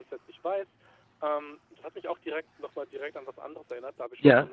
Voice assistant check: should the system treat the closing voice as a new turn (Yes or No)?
No